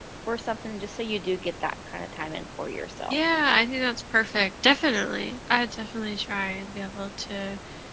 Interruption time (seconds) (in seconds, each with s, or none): none